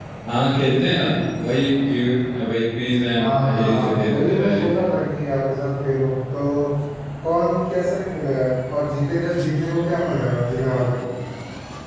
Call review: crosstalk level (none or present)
present